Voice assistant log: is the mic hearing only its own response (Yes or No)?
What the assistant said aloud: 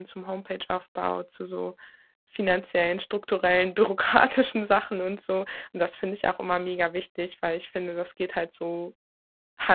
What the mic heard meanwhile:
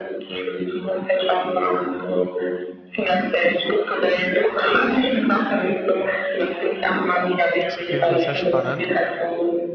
No